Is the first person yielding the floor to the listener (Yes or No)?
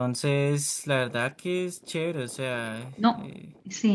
Yes